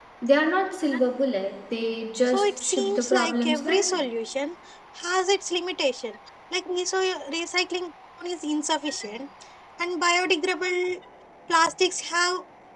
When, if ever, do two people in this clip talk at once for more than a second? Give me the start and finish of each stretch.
2.3-4.0

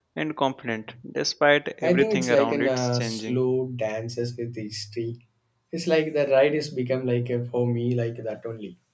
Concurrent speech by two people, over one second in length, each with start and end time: 1.8-3.4

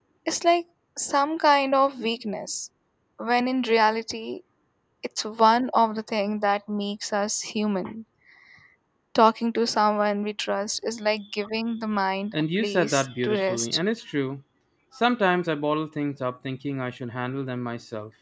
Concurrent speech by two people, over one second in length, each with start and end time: 12.3-13.8

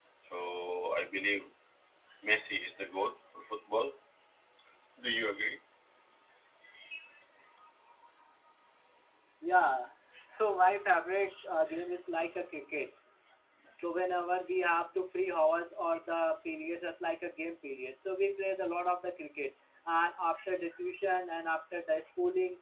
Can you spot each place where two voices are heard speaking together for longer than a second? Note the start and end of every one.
none

